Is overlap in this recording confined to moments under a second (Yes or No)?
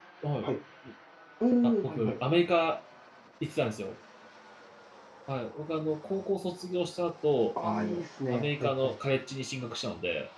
No